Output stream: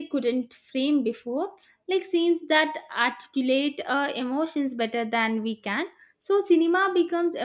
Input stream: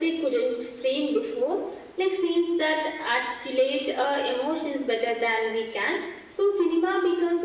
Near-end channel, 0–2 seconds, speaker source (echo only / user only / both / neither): echo only